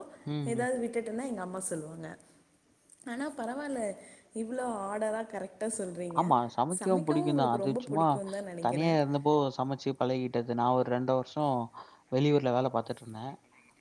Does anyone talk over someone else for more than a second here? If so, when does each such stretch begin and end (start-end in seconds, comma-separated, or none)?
6.8-8.1